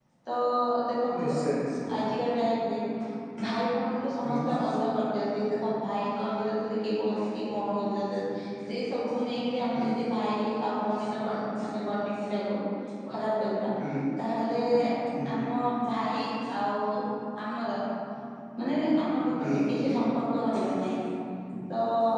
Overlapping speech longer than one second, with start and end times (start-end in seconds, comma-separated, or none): none